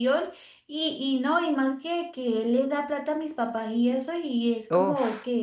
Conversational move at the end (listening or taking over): listening